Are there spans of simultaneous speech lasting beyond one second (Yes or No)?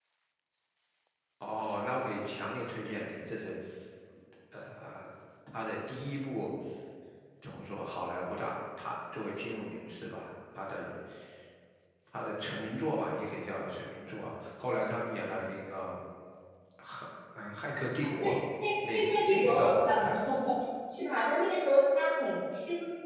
Yes